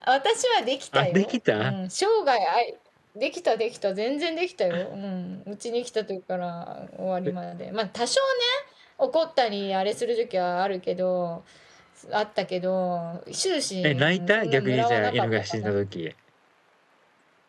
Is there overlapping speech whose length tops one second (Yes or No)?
Yes